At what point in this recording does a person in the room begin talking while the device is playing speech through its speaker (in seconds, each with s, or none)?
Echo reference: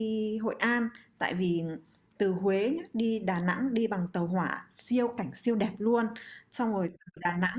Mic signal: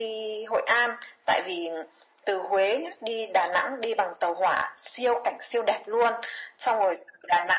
none